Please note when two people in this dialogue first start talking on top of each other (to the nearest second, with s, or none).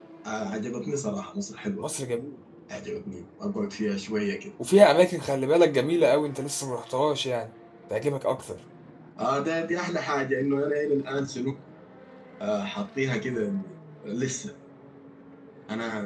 none